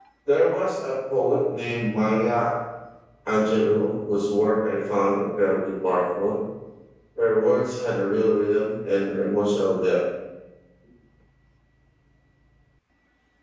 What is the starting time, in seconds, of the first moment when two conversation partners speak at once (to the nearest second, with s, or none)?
none